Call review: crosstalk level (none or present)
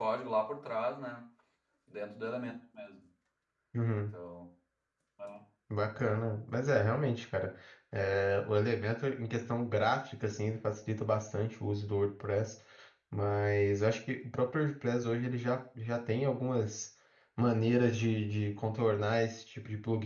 none